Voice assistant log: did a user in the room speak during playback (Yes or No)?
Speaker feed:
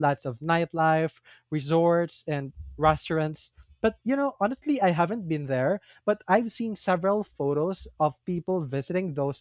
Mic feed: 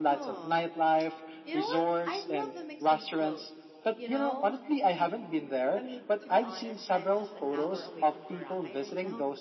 Yes